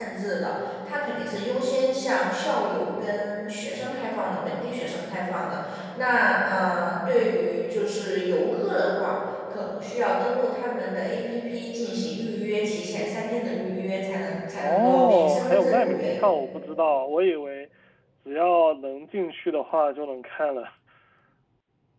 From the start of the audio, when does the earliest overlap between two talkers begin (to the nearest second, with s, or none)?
15 s